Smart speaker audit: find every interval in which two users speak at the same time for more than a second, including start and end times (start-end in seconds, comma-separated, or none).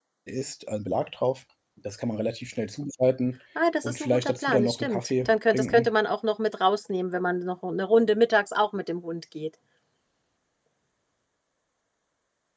3.8-5.9